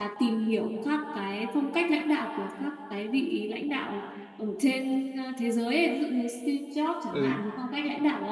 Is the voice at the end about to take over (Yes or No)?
No